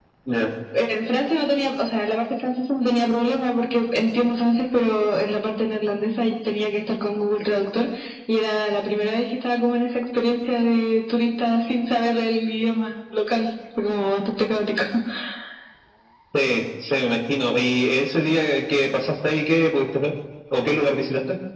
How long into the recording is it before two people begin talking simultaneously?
none

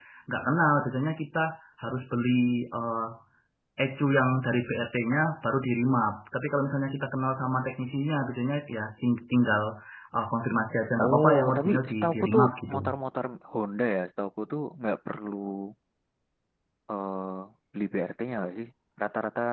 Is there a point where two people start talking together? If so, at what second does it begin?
11 s

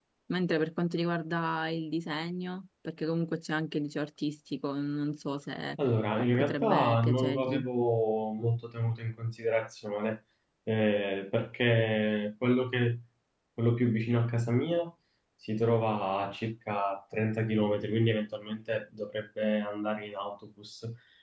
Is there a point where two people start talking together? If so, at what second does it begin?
6 s

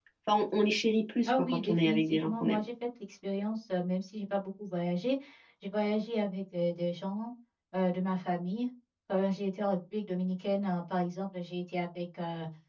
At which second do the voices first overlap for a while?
1 s

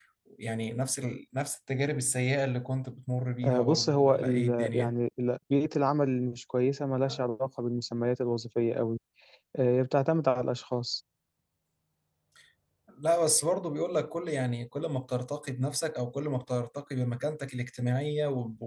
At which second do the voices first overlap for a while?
3 s

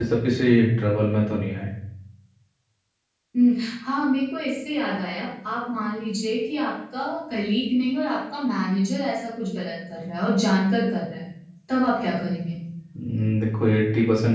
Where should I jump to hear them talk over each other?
none

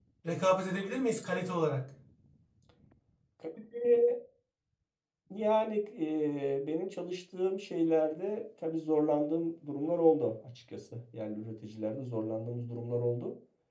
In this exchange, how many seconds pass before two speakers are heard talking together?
none

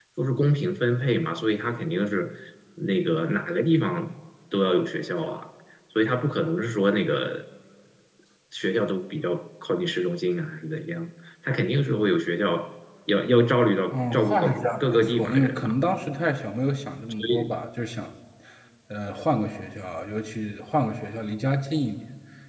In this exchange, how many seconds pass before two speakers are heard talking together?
14 s

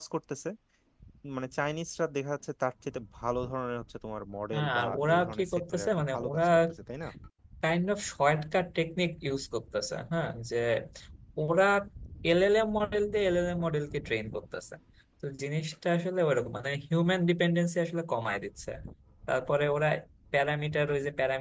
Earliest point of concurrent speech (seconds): 5 s

